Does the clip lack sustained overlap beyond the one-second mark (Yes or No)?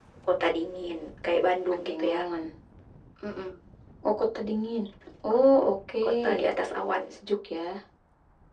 Yes